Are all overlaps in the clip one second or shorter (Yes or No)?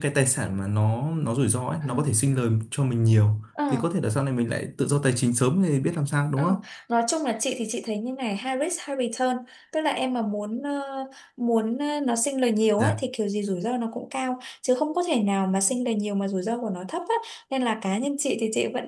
Yes